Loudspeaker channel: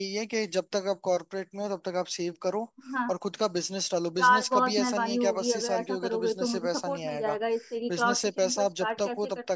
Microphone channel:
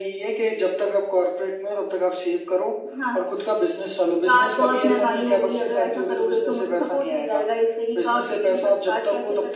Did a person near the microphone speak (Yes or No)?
No